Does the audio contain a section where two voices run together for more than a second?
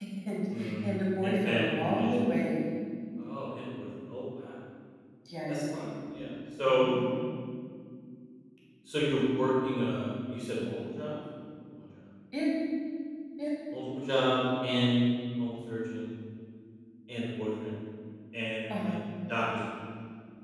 Yes, from 0.6 s

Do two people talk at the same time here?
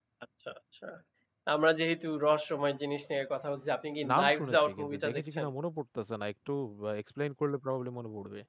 Yes, from 4.0 s

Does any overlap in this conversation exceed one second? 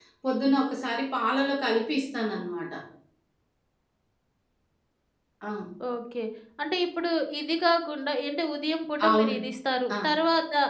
No

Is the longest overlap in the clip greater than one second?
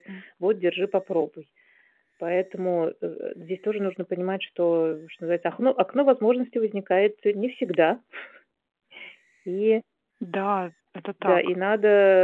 No

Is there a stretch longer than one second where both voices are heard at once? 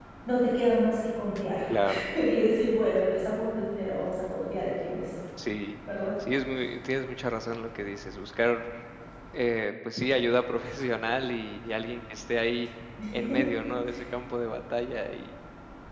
No

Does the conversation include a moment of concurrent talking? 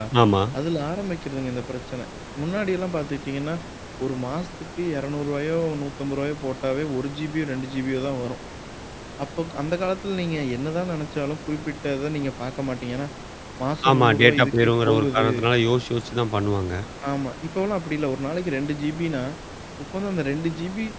Yes, from 13.9 s

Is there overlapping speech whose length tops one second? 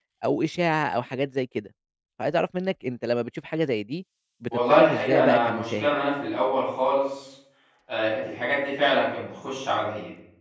Yes, from 4.5 s

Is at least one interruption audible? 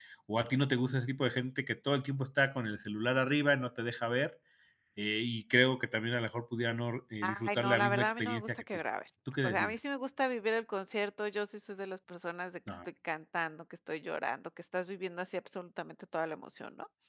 Yes, from 7.2 s

